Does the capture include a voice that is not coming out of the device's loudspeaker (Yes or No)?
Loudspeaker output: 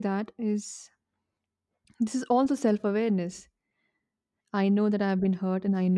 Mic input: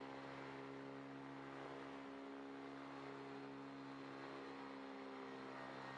No